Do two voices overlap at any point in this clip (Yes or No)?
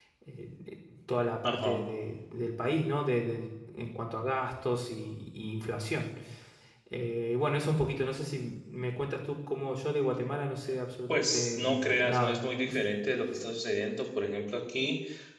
Yes